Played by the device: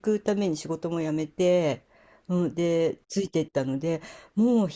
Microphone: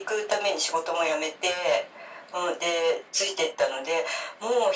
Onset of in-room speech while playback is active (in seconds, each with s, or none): none